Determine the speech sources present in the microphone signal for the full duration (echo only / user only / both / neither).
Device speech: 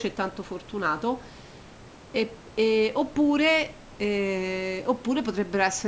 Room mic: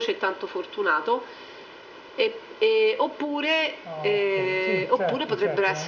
both